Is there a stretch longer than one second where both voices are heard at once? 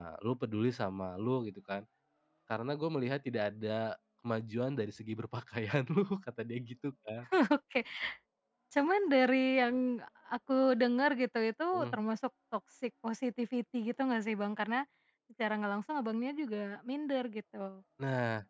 No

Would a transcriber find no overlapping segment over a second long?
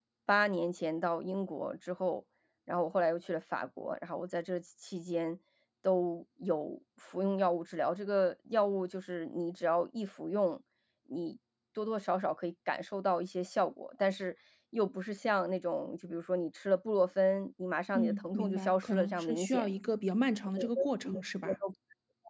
No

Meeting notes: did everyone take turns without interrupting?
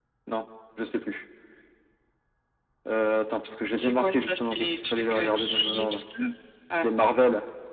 No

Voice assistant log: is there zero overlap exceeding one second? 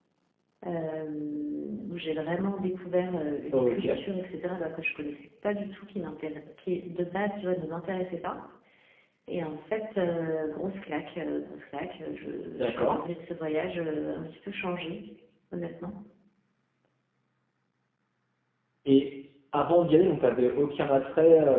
Yes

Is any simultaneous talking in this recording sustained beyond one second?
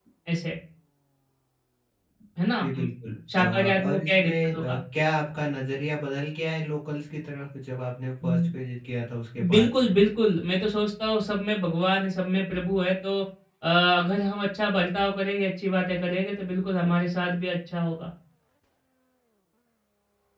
Yes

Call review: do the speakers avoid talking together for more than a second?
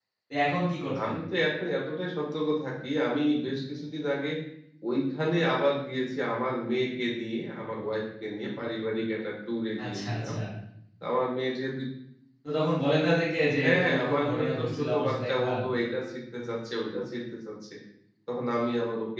No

